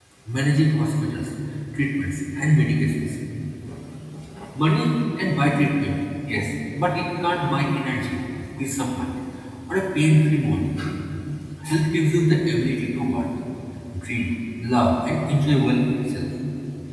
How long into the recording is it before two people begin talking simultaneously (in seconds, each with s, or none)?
none